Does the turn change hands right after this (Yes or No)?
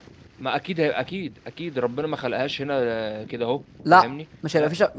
Yes